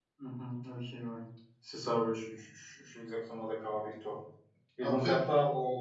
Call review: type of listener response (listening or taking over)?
listening